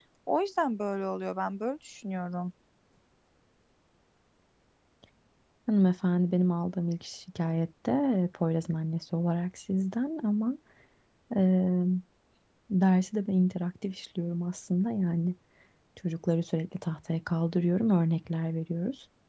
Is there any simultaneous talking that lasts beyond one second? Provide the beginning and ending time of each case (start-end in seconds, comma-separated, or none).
none